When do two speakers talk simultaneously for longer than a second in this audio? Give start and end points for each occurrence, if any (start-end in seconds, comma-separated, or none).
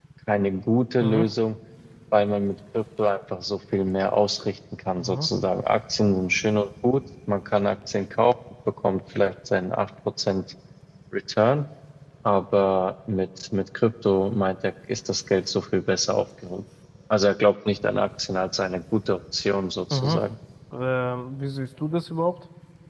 none